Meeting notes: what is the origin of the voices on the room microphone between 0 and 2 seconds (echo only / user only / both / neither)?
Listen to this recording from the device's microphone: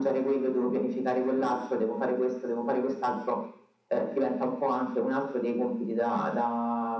echo only